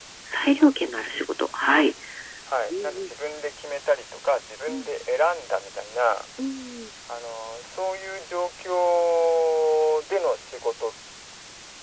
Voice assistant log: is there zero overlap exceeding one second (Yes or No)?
Yes